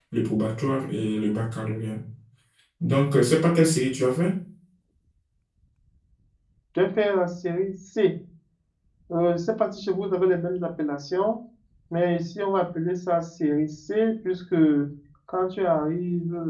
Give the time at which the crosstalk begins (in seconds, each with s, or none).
none